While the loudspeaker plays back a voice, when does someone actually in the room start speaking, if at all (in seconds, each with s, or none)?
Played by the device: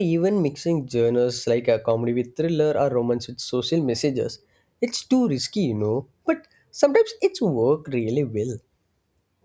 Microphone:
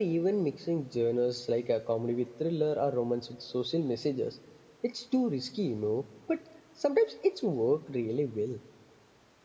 none